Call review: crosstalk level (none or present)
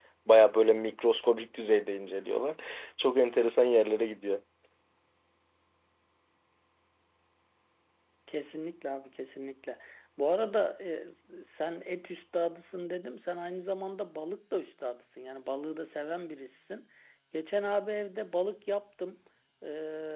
none